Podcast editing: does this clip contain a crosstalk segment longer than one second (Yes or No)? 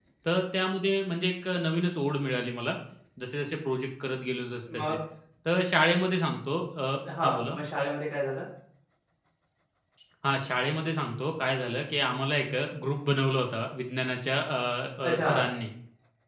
No